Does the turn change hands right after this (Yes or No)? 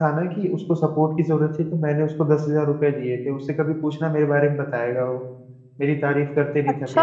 Yes